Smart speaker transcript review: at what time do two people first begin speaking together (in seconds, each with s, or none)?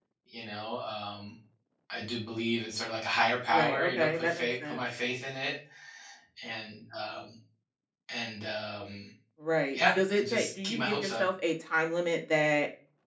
3.5 s